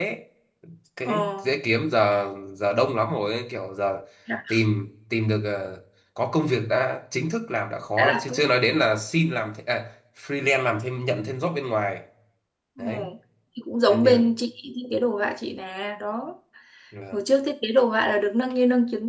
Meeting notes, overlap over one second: none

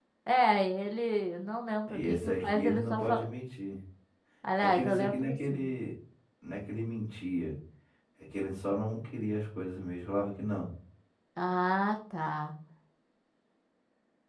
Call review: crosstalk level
present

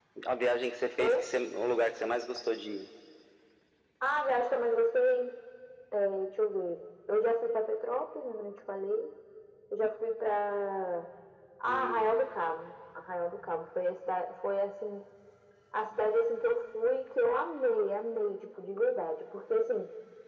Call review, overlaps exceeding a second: none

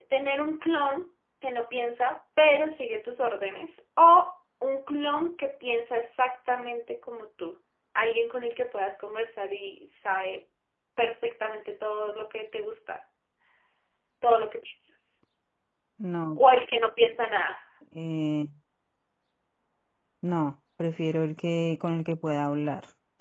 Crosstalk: none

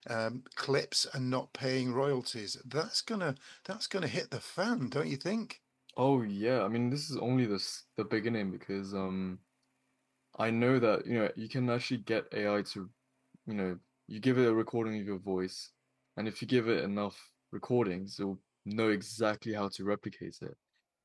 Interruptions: none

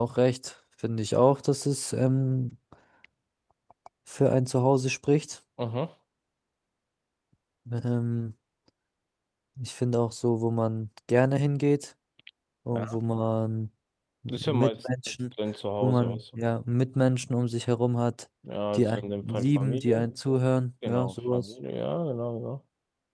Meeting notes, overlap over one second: present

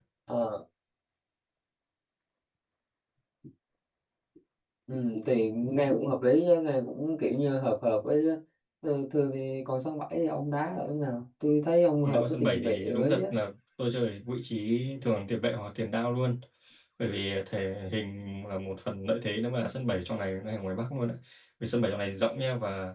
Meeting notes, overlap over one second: present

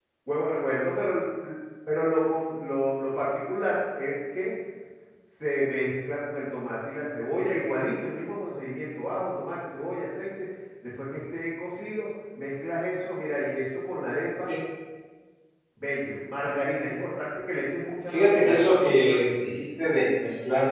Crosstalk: present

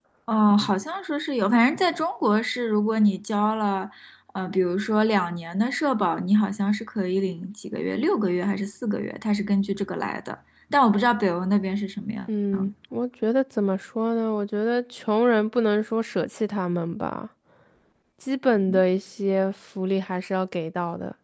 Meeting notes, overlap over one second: none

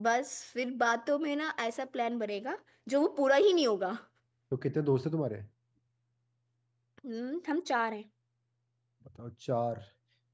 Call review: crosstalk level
none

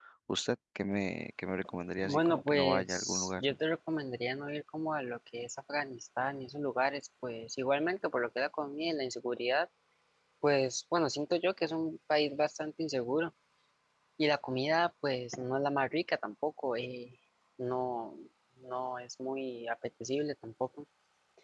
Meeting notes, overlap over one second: present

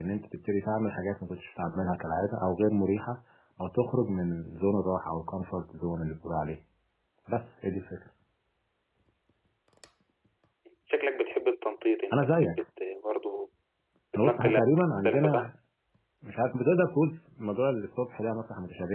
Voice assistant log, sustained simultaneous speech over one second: present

